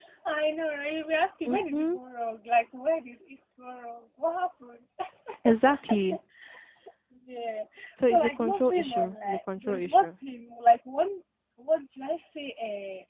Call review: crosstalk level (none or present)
present